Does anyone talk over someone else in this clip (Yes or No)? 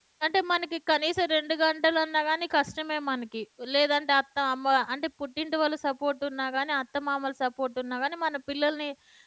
No